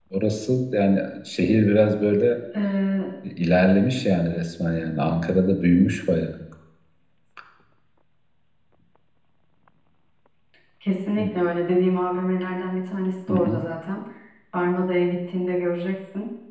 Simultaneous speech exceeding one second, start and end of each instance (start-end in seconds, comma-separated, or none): none